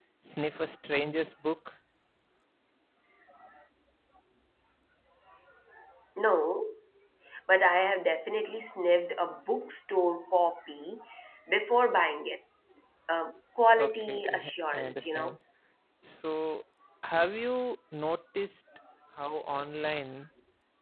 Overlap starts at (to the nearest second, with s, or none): 14 s